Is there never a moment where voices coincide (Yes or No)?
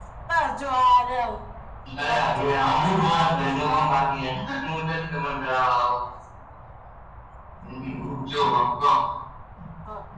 No